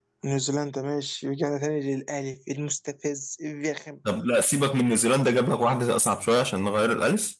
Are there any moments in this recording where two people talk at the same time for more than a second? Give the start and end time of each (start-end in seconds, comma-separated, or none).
none